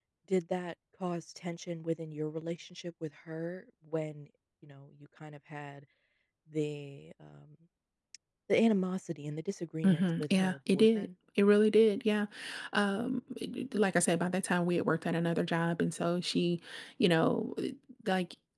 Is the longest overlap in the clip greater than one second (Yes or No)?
Yes